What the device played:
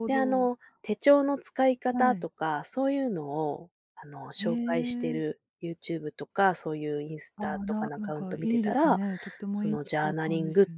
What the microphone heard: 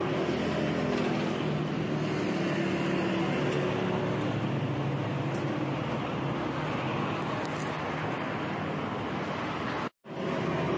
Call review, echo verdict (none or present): none